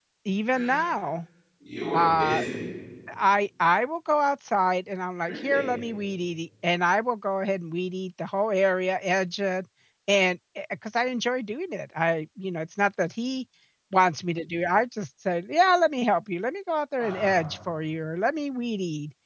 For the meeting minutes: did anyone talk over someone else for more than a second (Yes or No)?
No